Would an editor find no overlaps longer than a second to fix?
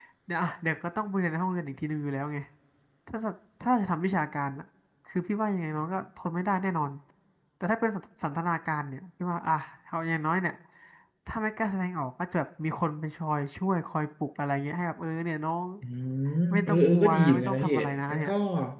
No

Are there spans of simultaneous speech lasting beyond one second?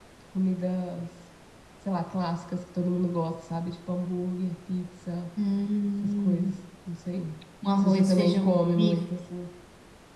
Yes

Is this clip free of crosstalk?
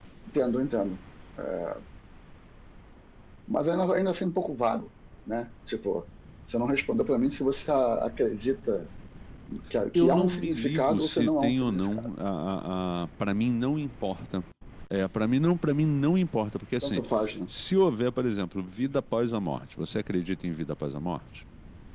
No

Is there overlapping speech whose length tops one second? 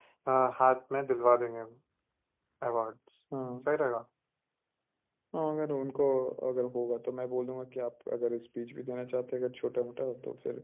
No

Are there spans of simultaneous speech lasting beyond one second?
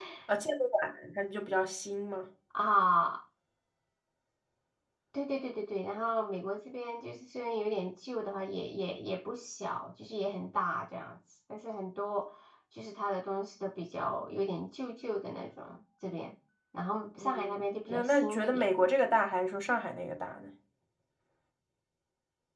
Yes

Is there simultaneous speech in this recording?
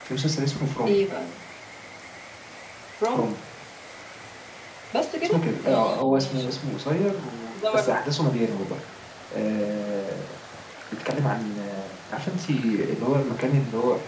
Yes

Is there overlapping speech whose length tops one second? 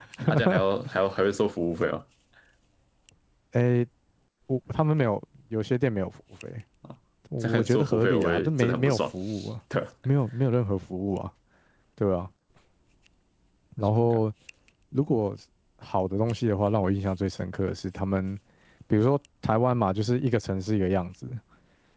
Yes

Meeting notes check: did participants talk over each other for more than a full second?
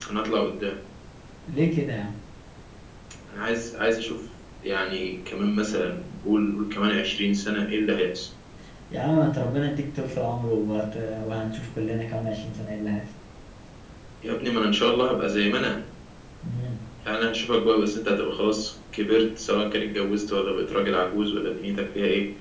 No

